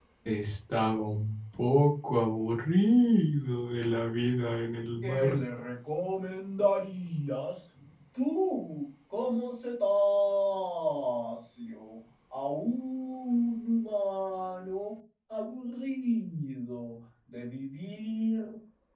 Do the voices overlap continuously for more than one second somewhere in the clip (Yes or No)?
No